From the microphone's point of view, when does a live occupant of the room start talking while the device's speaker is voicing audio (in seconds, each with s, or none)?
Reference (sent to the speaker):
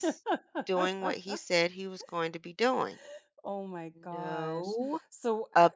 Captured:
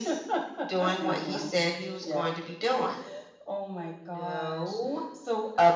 1.0 s